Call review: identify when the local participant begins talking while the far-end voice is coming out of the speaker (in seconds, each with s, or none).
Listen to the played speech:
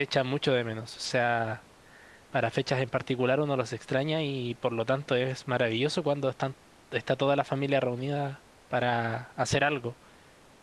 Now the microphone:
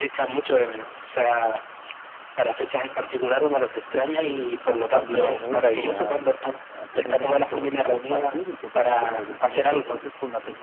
4.7 s